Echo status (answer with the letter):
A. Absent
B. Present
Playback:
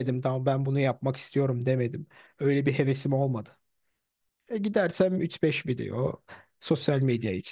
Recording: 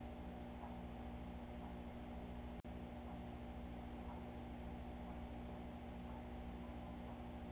A